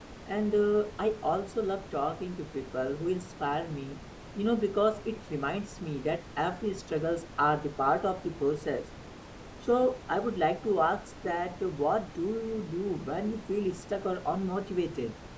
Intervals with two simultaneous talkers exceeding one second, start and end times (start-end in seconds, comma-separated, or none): none